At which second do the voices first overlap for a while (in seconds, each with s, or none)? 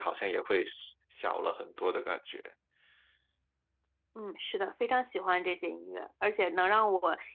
none